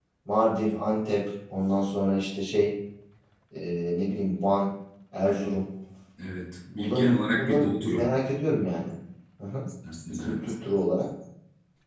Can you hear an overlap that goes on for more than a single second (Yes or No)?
Yes